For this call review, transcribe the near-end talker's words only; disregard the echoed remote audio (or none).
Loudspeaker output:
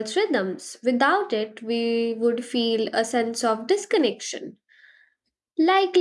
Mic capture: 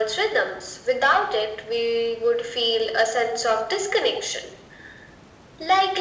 none